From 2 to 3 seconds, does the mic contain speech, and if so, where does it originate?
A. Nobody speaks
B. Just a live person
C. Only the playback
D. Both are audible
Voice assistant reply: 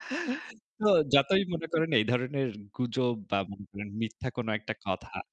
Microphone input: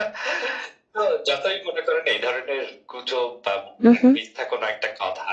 C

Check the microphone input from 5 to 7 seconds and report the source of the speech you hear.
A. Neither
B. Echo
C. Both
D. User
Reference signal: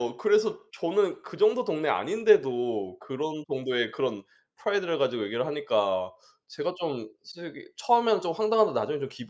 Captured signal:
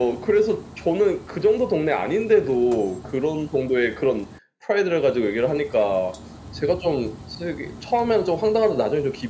B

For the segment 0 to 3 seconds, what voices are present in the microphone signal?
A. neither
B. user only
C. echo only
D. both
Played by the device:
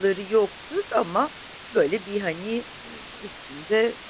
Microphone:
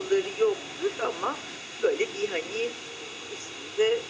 C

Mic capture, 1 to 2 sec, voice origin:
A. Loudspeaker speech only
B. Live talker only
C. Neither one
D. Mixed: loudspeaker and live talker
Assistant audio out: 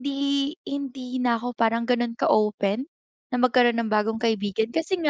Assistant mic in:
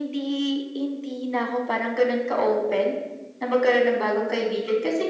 A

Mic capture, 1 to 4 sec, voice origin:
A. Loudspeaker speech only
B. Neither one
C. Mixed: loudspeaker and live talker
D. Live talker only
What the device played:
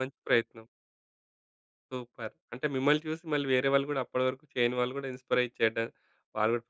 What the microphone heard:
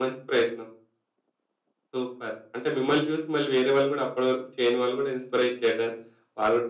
A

